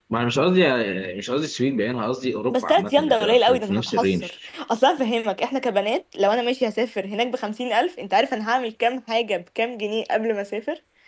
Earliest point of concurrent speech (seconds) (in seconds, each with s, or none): 2.5 s